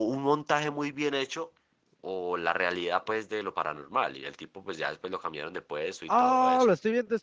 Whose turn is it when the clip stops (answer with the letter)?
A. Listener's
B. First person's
A